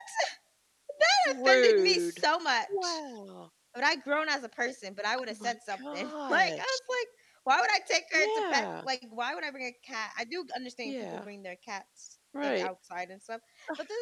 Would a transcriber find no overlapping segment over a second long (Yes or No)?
No